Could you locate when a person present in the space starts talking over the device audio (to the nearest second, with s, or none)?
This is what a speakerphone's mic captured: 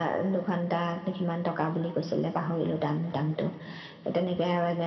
none